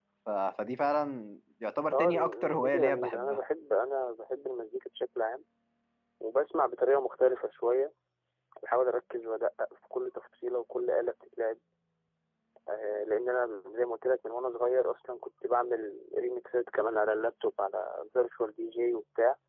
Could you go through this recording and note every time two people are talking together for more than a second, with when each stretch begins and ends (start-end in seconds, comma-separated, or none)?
1.9-3.4